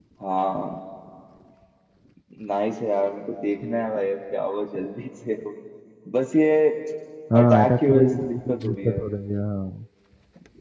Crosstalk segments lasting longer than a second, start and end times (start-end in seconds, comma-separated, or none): 7.4-9.0